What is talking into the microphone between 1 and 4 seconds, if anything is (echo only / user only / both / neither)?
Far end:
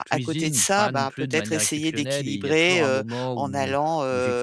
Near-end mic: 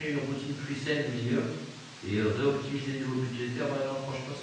user only